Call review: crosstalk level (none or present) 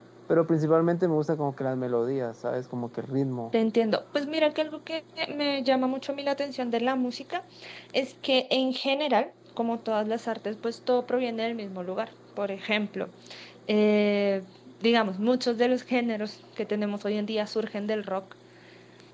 none